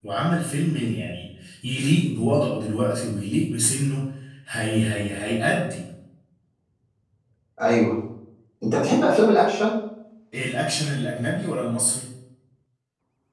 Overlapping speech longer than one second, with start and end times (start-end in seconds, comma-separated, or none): none